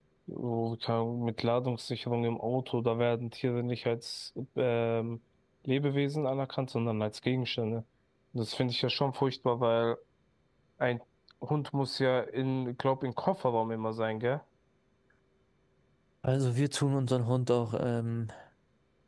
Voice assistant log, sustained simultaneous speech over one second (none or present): none